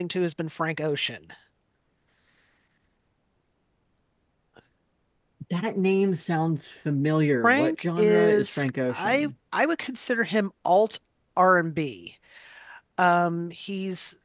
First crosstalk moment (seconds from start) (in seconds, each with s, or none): 7.4 s